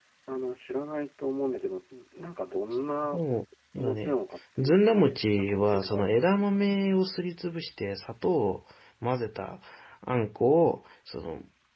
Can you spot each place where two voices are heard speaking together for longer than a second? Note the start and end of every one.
4.6-6.7

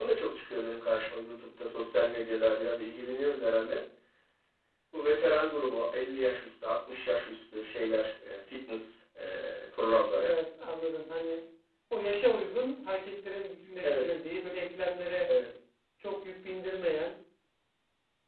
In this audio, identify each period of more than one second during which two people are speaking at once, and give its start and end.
none

